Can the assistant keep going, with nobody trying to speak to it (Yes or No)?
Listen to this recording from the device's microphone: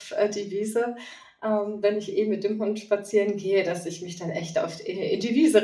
No